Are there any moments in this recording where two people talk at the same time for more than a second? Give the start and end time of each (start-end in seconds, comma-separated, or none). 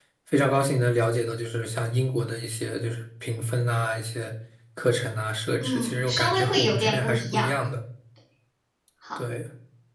5.6-7.5